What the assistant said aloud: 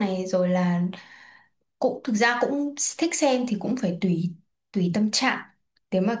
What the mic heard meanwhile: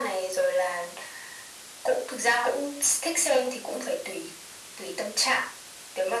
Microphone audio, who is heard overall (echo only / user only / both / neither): echo only